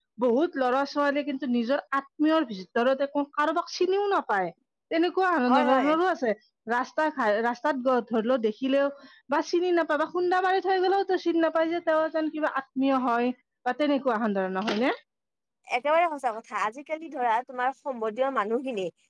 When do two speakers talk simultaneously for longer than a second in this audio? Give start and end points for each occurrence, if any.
none

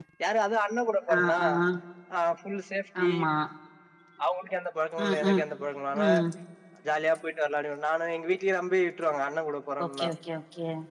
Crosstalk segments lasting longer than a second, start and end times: none

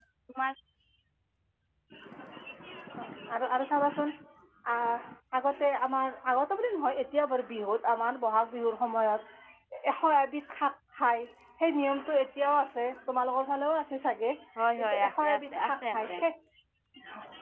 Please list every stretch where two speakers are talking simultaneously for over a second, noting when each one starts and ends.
14.8-16.1

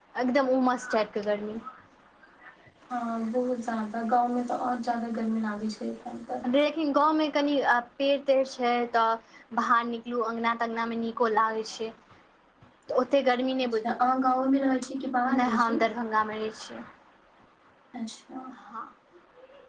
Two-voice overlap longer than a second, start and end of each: none

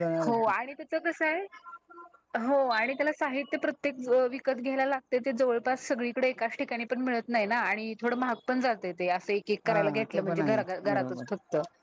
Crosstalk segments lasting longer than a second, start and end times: 9.7-11.3

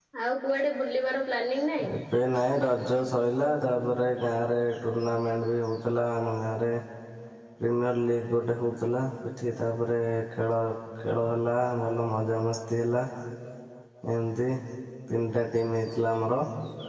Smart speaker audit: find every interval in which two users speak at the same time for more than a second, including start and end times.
none

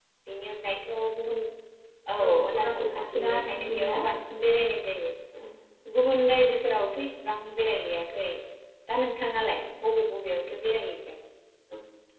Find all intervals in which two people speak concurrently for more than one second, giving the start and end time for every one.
2.2-4.0

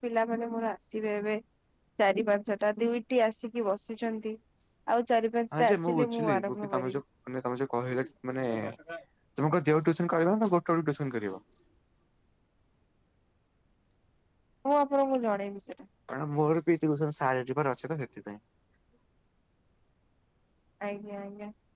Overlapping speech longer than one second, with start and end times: 5.6-7.0

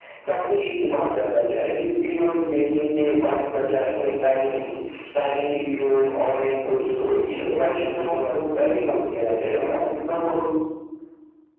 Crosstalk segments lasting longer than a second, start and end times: 7.4-8.7

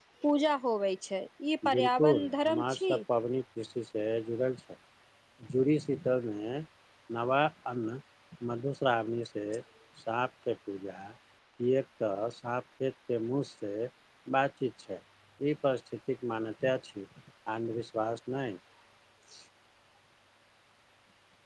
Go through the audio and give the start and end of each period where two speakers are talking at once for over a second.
1.8-3.0

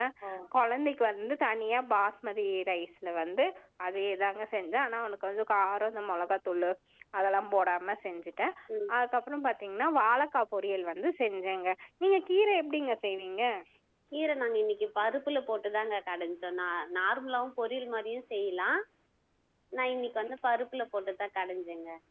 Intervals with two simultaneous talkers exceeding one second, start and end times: none

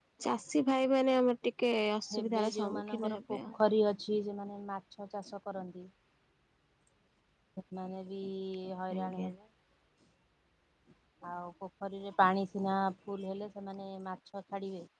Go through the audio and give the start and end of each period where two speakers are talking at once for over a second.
2.1-3.4

